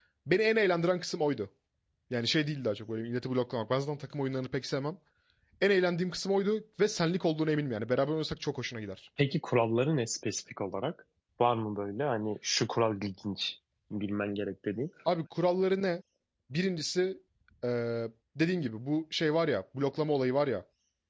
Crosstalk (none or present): none